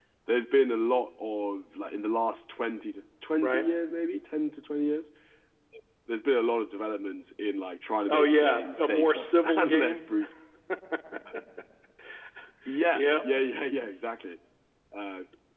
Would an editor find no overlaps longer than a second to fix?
No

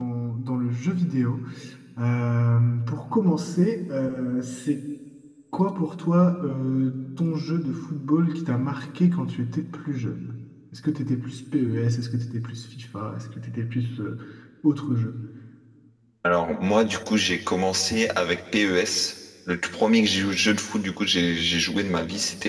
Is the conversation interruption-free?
Yes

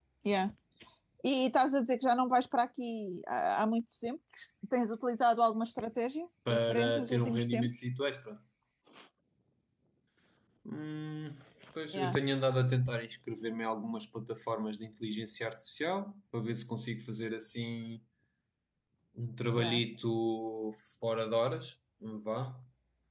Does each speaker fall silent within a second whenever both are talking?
No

